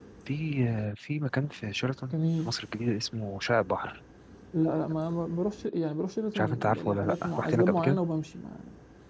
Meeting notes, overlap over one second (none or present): present